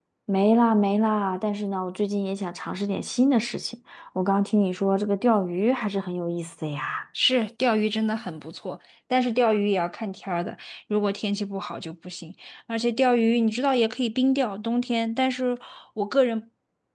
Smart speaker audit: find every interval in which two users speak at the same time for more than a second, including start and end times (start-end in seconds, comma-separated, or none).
none